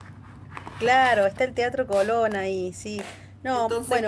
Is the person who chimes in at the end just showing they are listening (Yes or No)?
No